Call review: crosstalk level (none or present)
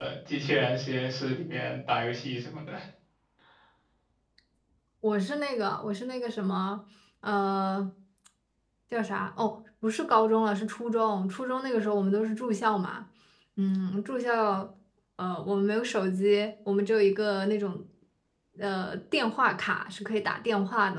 none